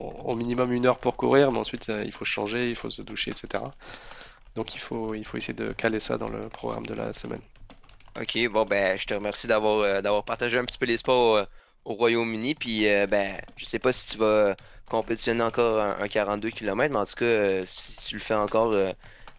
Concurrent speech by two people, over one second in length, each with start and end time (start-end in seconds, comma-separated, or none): none